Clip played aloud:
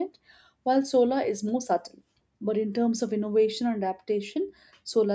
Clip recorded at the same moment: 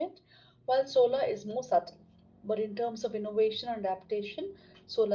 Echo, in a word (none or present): present